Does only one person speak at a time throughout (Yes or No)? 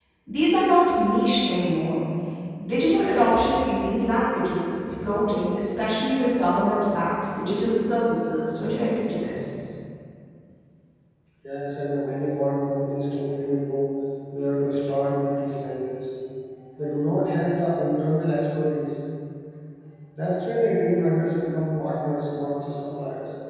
Yes